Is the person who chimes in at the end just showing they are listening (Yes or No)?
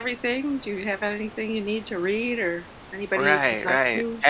No